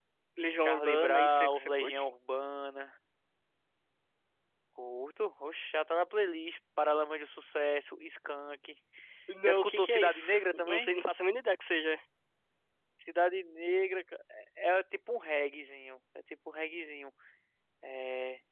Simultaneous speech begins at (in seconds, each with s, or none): 0.6 s